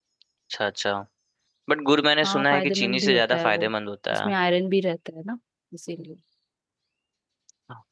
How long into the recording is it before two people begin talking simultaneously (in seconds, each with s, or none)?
2.2 s